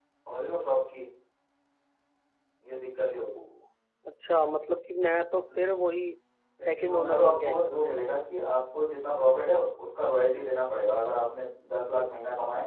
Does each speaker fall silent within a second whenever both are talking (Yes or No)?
No